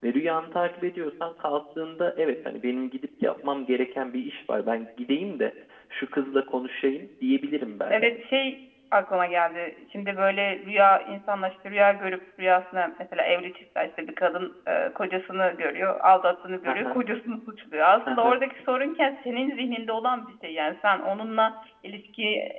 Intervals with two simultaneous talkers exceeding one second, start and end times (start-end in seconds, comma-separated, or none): none